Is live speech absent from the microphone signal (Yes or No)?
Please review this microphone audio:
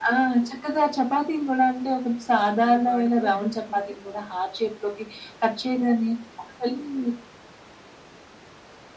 No